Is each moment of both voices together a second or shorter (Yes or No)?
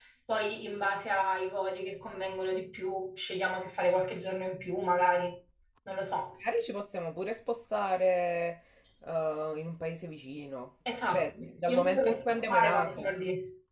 No